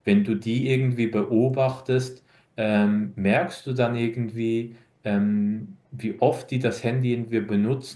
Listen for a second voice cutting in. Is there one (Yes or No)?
No